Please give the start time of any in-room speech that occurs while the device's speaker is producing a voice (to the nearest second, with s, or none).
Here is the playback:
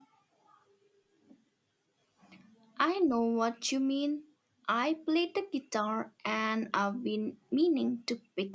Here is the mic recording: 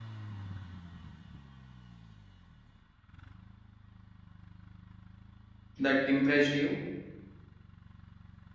6 s